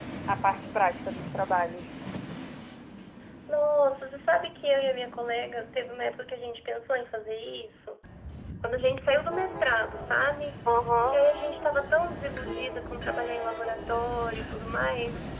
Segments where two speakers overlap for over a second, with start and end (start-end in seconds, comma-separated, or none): none